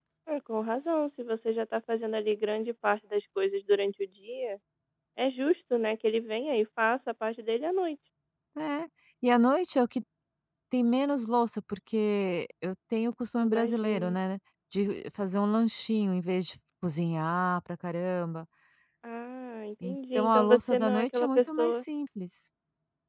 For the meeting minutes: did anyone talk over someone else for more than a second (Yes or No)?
Yes